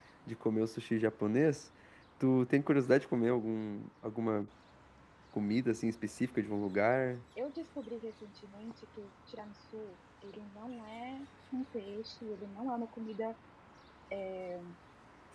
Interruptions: none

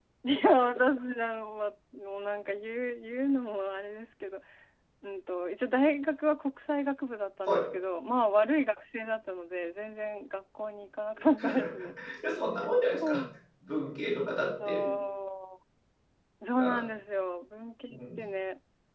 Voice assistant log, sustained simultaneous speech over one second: none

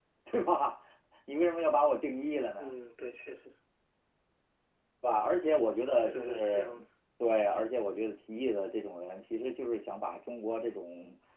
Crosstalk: present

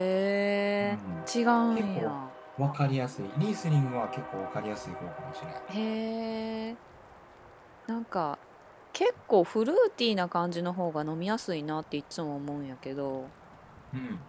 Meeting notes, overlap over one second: none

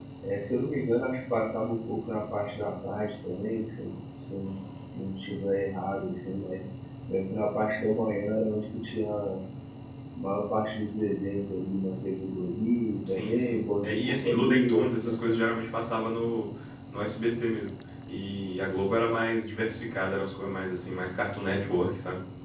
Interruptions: present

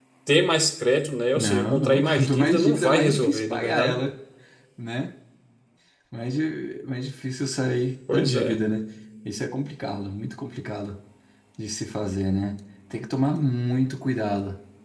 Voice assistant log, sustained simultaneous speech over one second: present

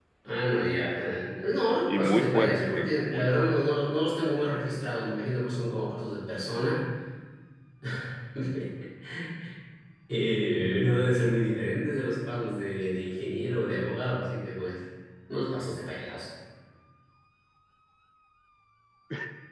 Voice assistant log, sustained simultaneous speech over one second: present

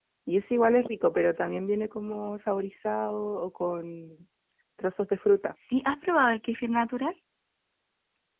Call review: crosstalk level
none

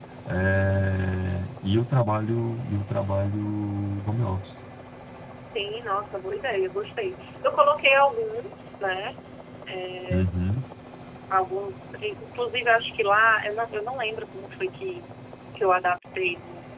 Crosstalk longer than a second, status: none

